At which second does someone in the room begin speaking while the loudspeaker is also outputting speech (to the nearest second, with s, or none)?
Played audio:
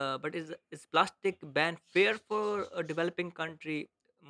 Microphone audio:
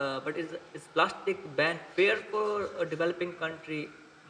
none